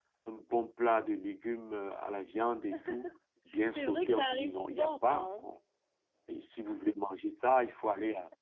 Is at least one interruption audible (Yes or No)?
Yes